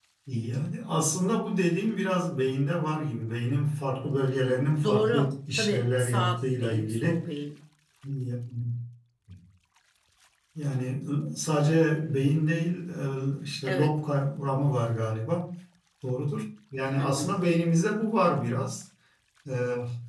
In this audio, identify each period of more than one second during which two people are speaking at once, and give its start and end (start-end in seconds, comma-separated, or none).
4.8-7.3